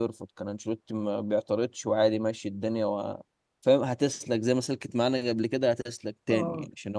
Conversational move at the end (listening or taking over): listening